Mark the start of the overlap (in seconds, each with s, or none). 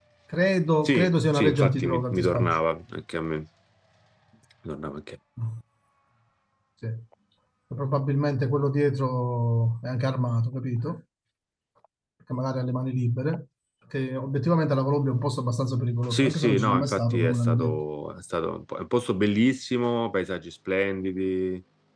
0.8 s